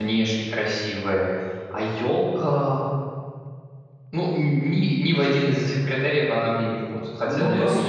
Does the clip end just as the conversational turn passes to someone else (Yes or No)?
Yes